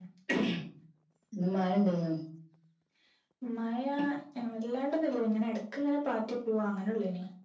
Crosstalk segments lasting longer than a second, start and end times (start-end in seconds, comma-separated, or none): none